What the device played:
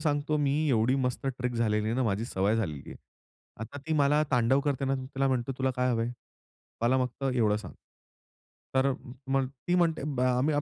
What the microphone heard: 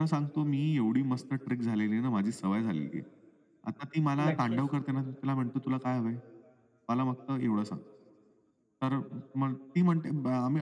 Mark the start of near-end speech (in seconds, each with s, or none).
4.2 s